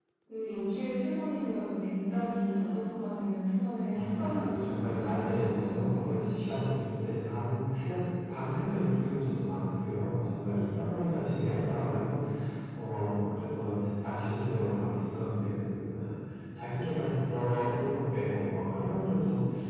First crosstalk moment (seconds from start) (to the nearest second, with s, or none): 4 s